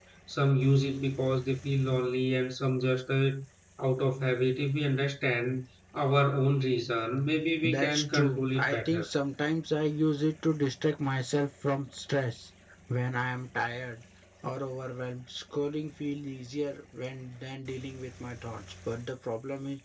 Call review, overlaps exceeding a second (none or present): present